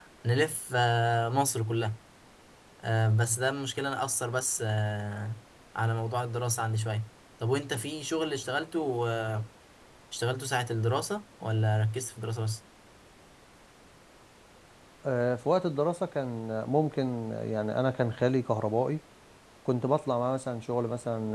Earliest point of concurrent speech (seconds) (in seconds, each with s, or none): none